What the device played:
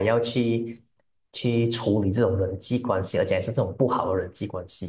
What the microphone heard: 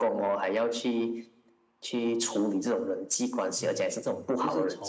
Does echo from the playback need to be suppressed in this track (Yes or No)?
Yes